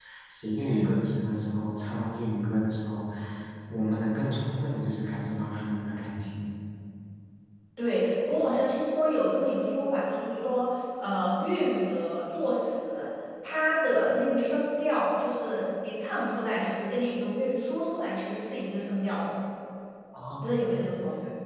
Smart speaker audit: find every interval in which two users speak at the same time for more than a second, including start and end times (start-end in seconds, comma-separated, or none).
none